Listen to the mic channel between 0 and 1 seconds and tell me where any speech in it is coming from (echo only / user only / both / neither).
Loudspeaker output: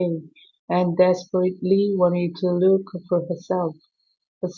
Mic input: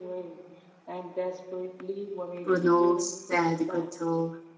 echo only